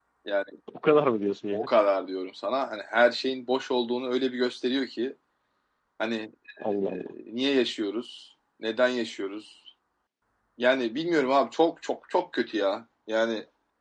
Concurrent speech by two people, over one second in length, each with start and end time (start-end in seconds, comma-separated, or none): none